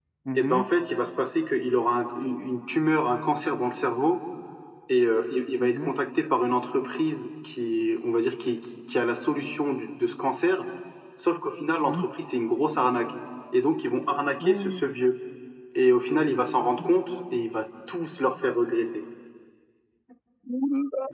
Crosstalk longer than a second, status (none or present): none